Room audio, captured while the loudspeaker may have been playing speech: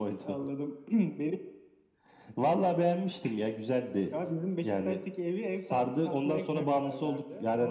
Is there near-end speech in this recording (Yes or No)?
No